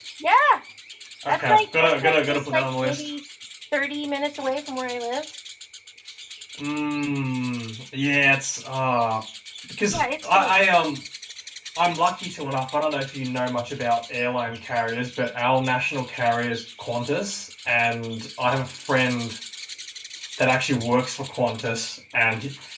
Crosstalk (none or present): present